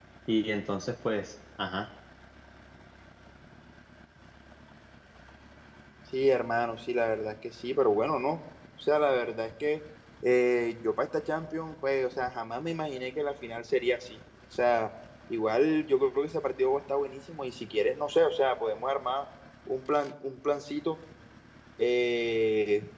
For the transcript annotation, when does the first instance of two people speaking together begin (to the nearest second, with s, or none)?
none